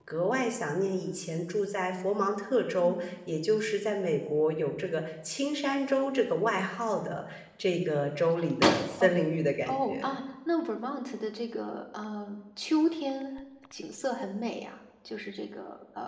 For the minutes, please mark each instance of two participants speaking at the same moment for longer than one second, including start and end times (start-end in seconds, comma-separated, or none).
none